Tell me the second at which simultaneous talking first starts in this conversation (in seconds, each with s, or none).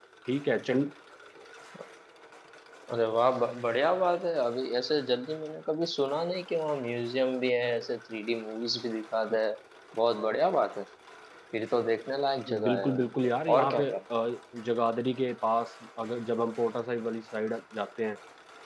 12.5 s